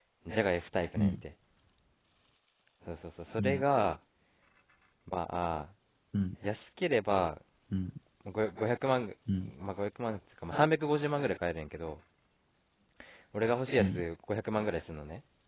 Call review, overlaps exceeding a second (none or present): none